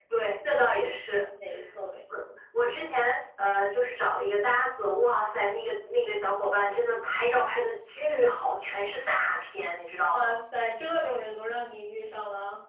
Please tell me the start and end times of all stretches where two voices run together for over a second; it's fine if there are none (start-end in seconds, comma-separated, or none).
none